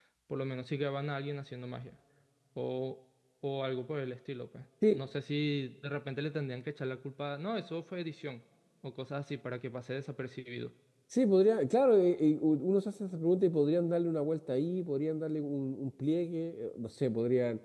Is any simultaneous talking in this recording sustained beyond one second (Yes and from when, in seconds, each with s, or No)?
No